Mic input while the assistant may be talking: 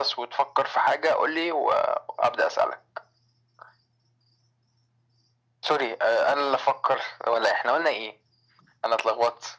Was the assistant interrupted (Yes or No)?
No